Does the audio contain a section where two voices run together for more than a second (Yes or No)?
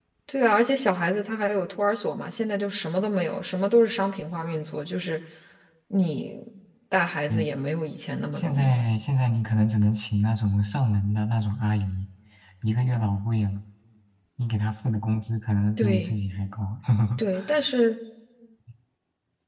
No